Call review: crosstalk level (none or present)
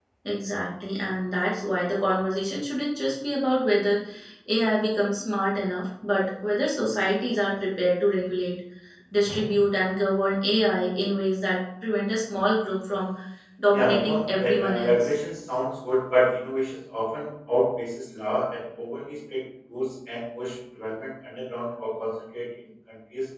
present